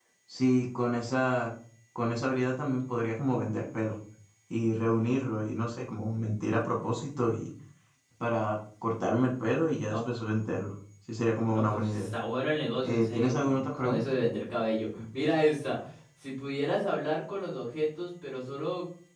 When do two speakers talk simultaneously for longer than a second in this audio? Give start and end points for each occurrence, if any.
12.8-14.1

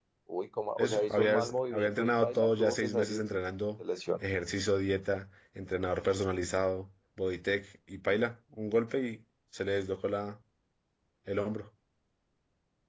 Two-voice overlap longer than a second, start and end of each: 0.8-3.3

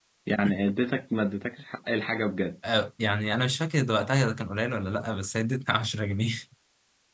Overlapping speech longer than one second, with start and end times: none

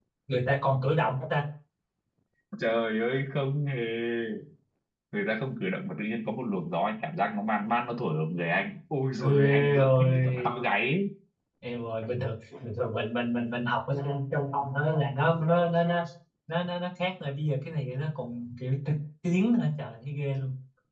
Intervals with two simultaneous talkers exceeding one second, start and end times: 9.2-10.5

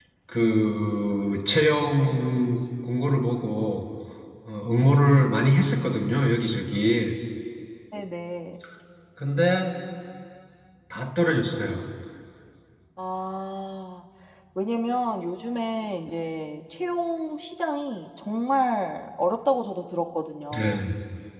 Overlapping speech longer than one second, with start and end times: none

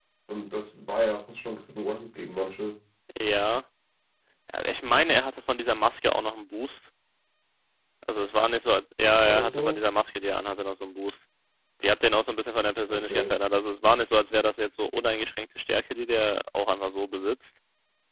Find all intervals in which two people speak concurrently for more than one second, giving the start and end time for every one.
none

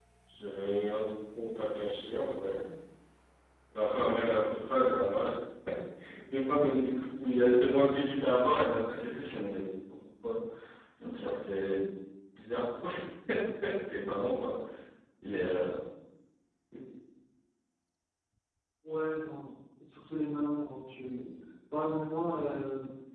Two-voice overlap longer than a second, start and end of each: none

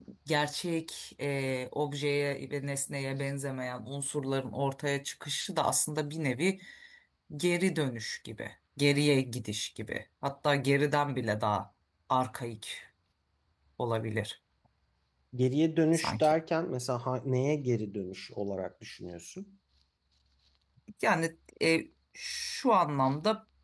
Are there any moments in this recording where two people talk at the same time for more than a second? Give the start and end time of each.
none

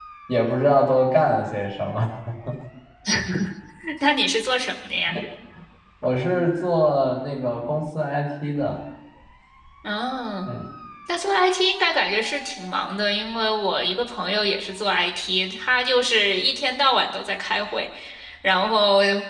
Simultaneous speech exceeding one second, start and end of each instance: none

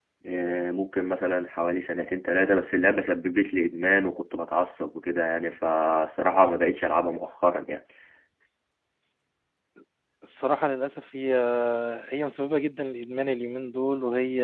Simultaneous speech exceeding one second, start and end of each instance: none

